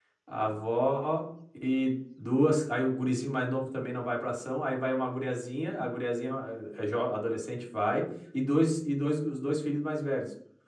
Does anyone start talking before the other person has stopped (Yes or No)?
No